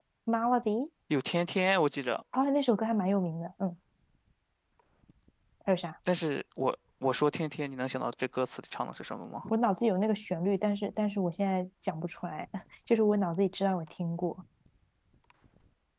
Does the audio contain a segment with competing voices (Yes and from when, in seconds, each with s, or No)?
No